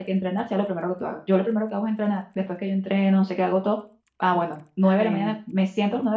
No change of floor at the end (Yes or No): Yes